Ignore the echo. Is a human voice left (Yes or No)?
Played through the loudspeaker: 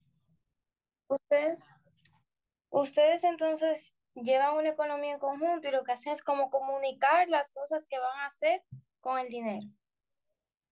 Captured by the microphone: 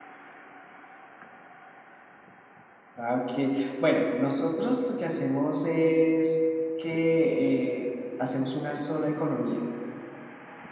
Yes